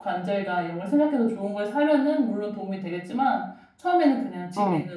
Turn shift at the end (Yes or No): No